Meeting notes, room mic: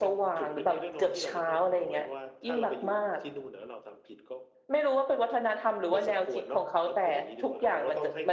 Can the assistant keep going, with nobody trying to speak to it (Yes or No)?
Yes